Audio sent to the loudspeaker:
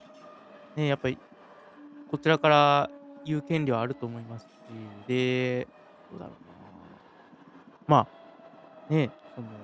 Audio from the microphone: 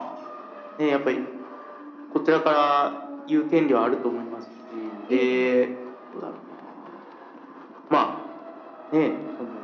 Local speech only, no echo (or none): ええええ。